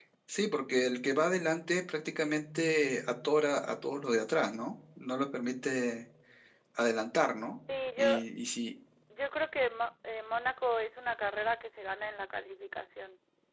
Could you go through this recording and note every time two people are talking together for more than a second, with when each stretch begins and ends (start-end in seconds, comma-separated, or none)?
none